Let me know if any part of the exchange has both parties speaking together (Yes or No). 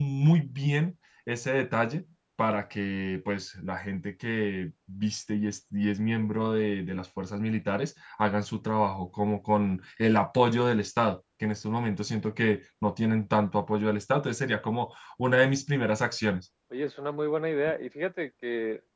No